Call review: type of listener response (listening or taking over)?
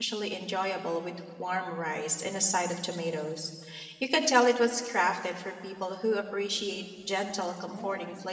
taking over